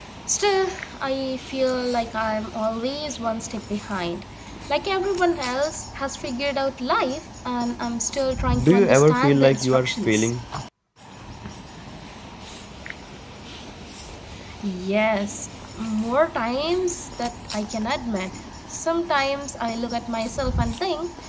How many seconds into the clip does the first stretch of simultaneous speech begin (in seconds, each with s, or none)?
8.6 s